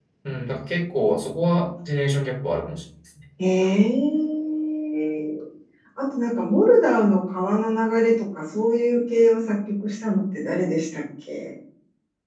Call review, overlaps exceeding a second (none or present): none